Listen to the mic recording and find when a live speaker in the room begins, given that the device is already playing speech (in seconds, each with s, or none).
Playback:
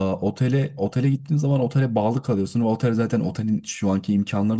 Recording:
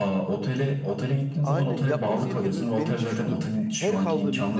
1.4 s